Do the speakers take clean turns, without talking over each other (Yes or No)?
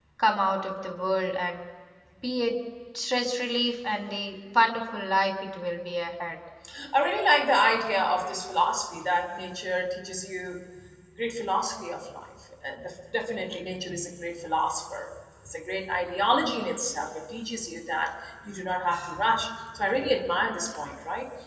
Yes